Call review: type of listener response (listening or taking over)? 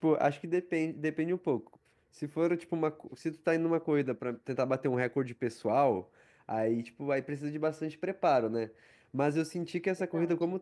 listening